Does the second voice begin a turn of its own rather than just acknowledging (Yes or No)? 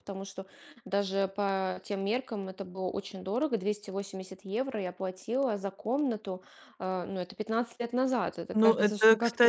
Yes